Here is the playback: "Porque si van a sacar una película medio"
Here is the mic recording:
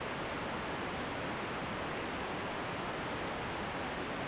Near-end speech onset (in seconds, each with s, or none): none